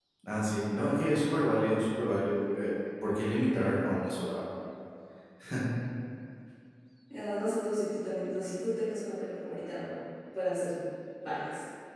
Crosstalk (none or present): none